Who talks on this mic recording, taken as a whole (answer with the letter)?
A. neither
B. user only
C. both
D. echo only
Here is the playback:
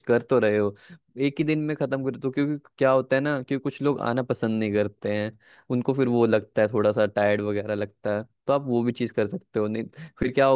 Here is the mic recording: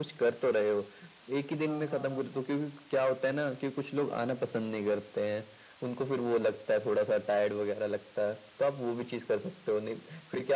C